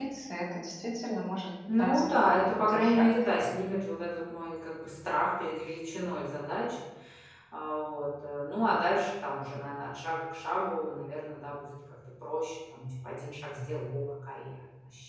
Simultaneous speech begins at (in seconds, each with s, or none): 1.7 s